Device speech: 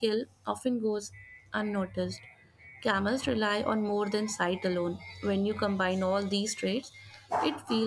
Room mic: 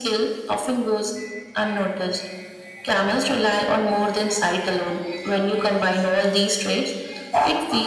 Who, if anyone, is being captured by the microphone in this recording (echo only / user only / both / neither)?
echo only